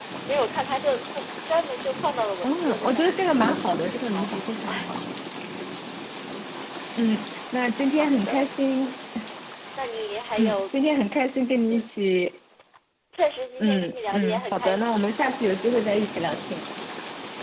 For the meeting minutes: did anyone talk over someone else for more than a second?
Yes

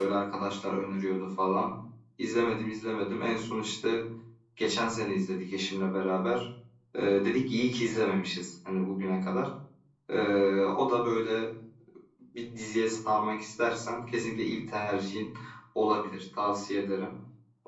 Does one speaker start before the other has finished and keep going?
No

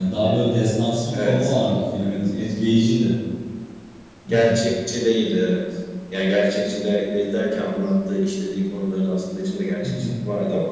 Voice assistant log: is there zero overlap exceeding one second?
Yes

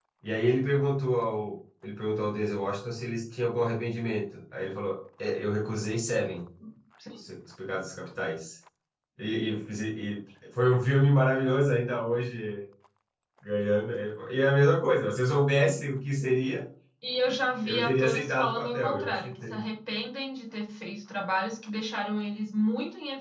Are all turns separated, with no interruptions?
No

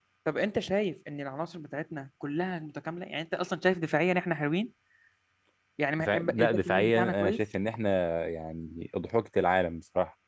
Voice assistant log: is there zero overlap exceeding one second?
No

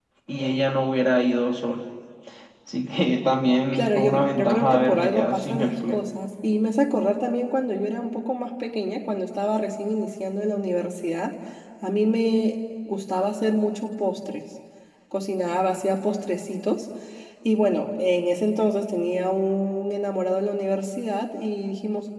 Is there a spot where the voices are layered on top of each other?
Yes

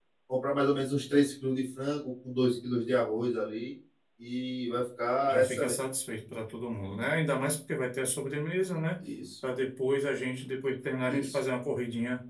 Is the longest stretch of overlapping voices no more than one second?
Yes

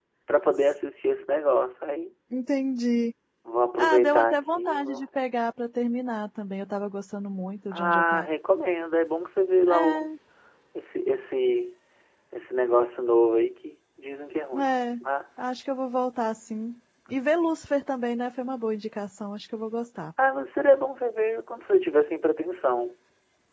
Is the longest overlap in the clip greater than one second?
Yes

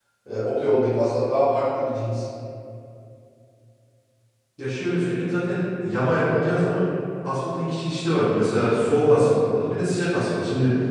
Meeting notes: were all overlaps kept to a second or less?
Yes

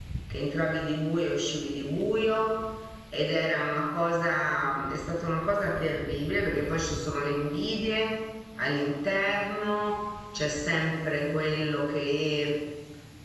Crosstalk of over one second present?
No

